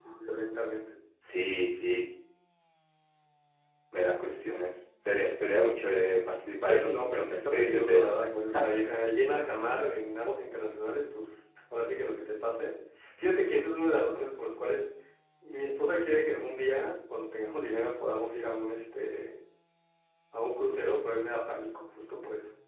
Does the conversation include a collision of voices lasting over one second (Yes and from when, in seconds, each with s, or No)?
Yes, from 6.6 s